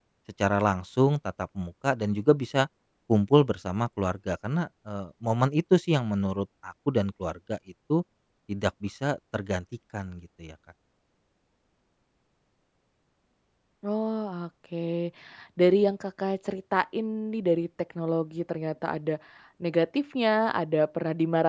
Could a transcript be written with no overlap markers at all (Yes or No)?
Yes